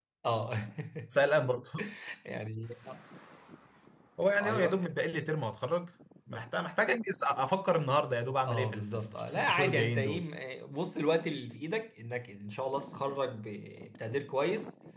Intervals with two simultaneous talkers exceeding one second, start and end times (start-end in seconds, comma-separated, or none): 8.5-10.2